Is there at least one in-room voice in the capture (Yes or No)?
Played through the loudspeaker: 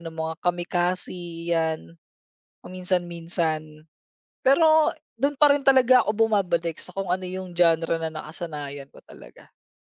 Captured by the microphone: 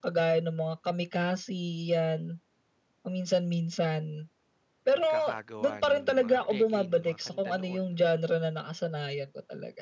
Yes